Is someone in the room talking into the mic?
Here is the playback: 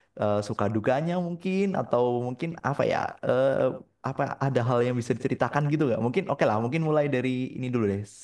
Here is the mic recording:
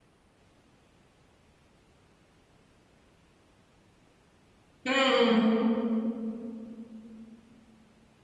Yes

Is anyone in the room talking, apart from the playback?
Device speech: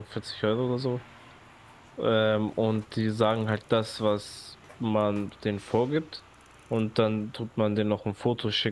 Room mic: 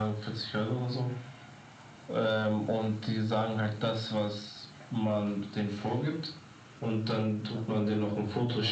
Yes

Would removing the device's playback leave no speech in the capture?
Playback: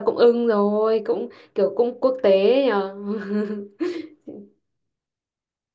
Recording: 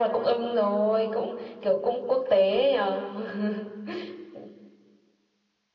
Yes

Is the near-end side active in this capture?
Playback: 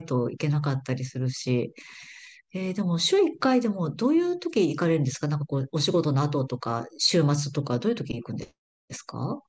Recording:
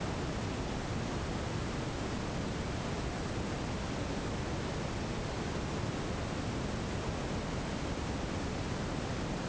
No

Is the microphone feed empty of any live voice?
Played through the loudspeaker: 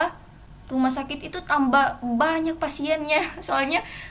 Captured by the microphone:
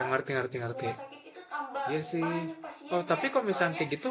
No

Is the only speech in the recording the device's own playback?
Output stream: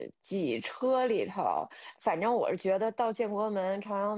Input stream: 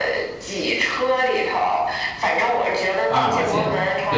No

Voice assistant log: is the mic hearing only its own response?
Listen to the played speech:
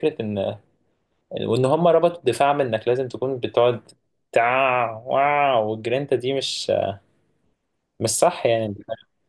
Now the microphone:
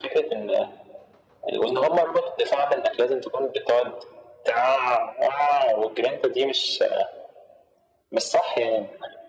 Yes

